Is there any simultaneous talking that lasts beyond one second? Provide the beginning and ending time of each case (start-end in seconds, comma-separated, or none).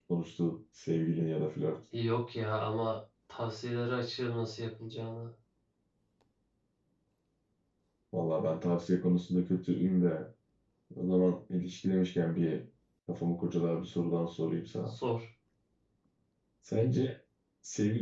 none